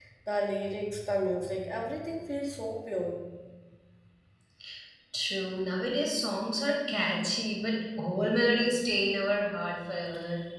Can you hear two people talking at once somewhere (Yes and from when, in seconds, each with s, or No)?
No